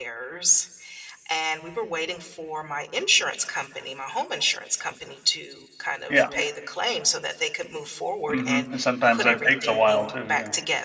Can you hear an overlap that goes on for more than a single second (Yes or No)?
Yes